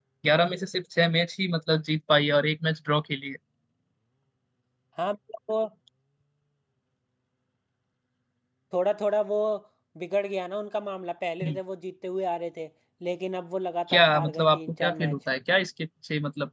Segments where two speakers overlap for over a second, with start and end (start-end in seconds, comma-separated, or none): 13.9-15.2